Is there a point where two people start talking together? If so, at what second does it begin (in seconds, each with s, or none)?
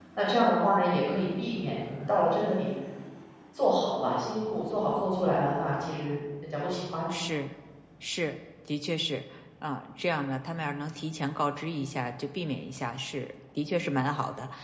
none